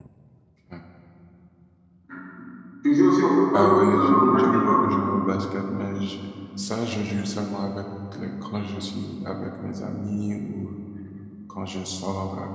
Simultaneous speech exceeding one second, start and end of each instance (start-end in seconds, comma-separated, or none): 3.5-4.8